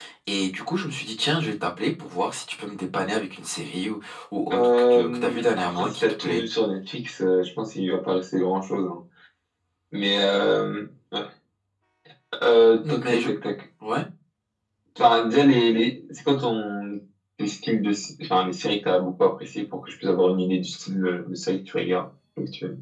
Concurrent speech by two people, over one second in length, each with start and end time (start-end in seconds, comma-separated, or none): 4.5-6.4